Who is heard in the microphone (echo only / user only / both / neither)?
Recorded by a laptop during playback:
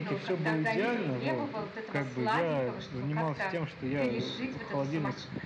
both